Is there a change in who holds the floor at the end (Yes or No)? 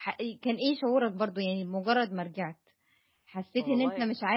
No